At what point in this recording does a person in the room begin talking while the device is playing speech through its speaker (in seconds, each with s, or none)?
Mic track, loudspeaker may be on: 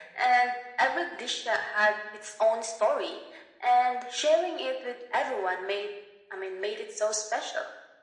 none